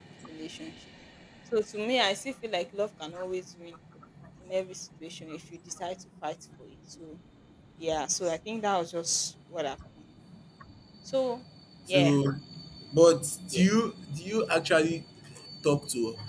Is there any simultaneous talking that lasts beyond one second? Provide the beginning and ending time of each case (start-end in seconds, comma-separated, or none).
none